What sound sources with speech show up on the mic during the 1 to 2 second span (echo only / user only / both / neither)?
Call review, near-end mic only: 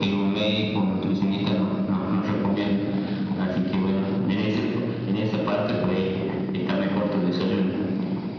echo only